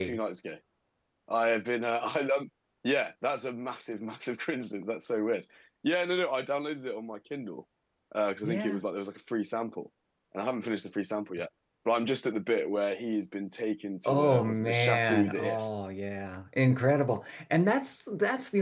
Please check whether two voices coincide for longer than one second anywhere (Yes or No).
Yes